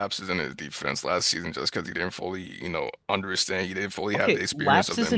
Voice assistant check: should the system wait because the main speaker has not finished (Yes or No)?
No